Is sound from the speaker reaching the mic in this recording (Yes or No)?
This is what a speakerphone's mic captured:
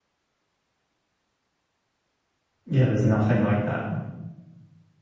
No